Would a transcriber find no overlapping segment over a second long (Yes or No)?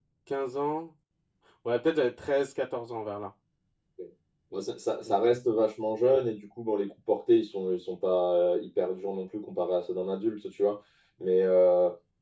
Yes